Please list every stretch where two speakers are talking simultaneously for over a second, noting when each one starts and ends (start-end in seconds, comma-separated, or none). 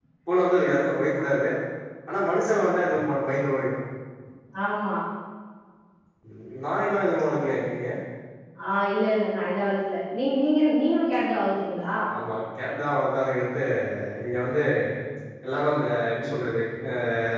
none